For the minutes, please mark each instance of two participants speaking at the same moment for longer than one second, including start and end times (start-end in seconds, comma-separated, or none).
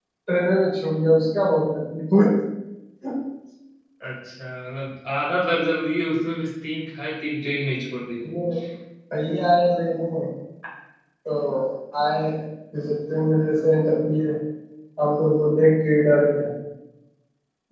none